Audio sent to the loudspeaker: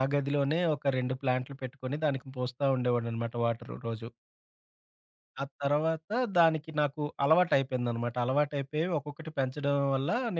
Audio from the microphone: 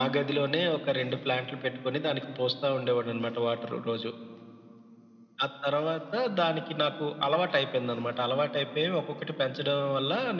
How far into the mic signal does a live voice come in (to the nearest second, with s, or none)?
none